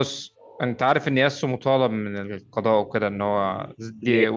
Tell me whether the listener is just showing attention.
Yes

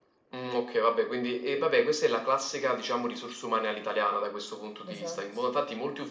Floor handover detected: No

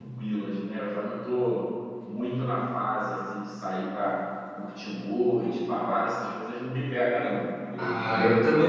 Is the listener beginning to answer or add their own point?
Yes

